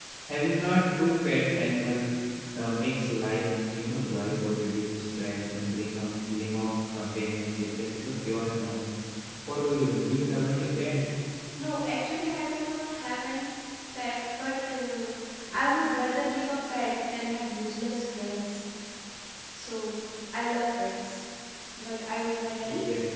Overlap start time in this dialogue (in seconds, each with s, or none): none